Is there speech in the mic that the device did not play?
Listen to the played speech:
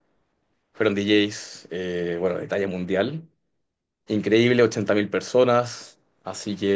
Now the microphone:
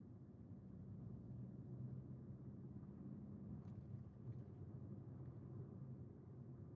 No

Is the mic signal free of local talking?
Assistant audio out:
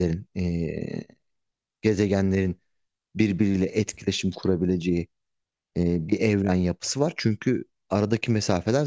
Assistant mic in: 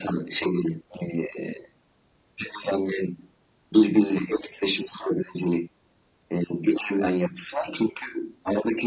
Yes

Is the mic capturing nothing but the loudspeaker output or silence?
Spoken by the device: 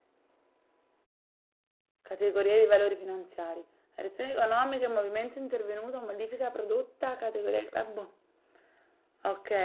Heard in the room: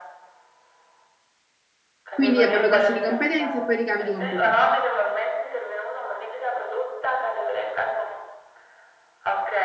No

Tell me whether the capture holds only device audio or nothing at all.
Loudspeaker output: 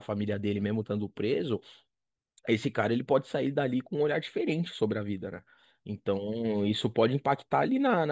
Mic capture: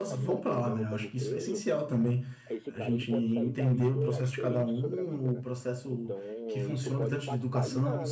No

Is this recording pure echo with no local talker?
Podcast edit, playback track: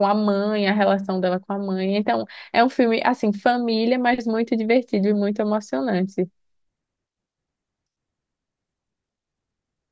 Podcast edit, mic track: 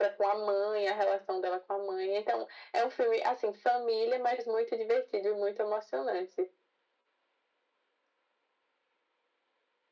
Yes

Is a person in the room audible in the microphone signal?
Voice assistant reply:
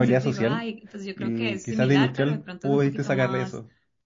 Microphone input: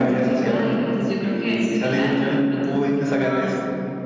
No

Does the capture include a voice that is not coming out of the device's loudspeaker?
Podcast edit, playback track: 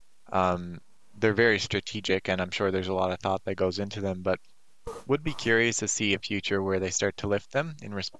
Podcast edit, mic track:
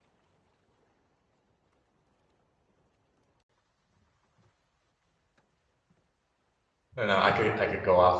Yes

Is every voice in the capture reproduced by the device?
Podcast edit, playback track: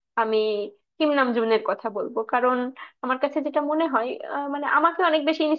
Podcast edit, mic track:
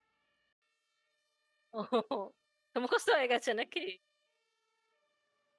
No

